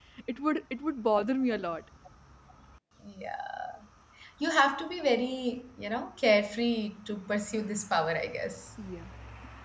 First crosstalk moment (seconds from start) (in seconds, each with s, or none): none